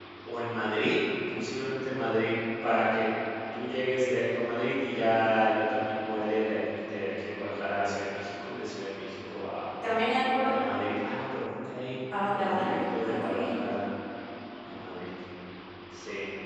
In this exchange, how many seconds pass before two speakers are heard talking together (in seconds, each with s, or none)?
12.1 s